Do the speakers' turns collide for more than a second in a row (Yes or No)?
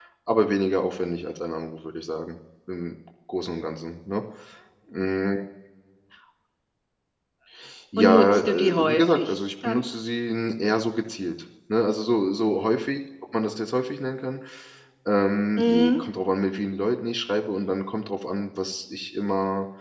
Yes